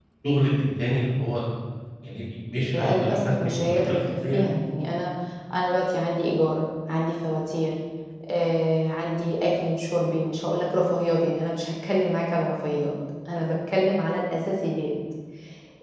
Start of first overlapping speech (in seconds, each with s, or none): 2.7 s